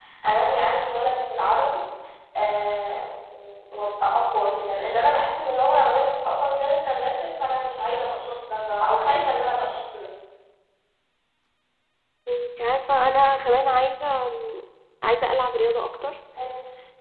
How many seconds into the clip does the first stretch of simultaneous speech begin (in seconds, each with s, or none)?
none